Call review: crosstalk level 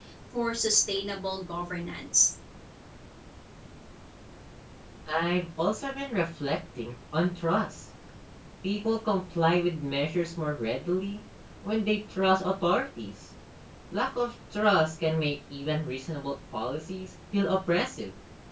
none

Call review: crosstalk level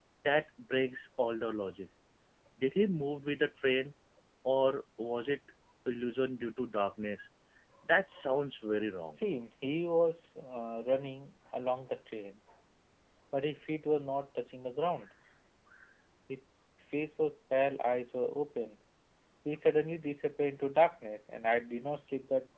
none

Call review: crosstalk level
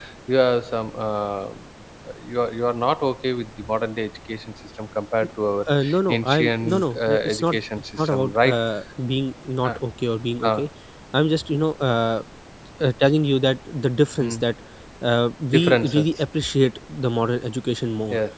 present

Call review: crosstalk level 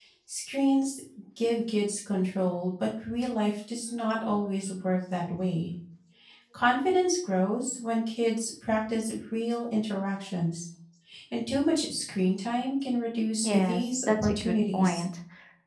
present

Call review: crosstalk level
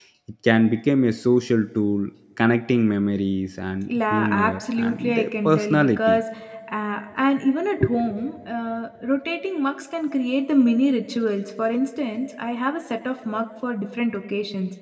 present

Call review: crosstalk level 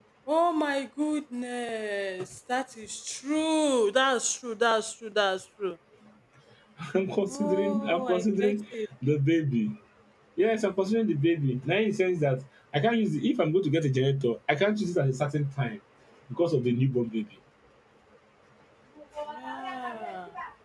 present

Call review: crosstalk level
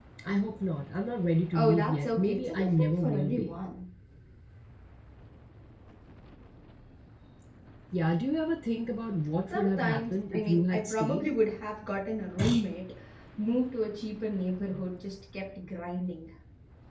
present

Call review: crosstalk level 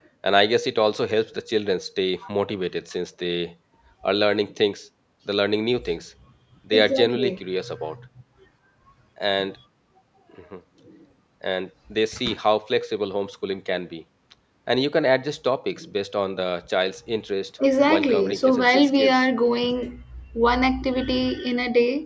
present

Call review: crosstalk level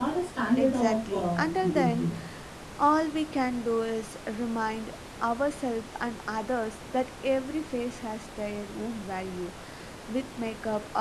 present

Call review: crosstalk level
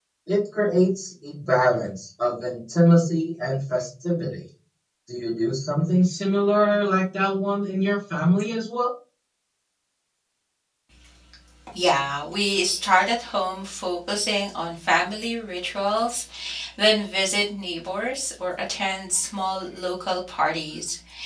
none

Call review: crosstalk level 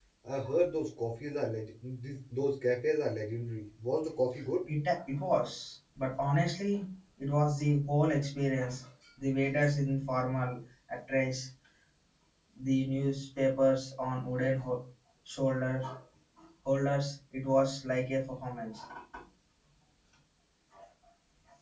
none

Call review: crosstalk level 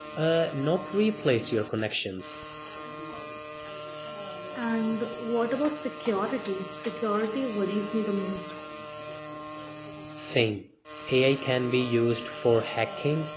none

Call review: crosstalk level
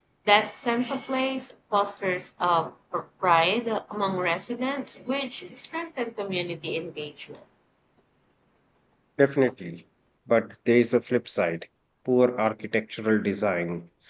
none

